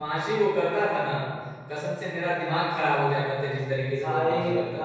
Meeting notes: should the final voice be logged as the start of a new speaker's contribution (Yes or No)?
Yes